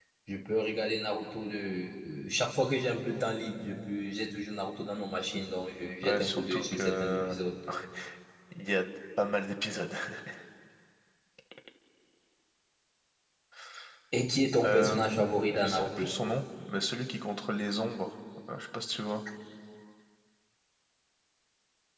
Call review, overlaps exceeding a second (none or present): present